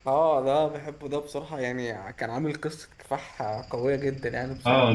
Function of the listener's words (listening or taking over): taking over